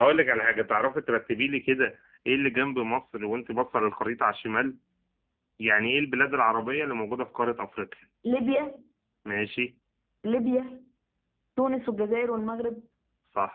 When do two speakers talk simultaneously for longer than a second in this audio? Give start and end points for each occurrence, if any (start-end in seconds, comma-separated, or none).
none